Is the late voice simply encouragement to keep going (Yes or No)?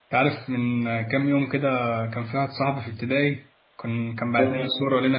Yes